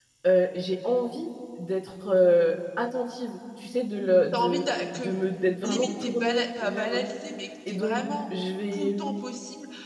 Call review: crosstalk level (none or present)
present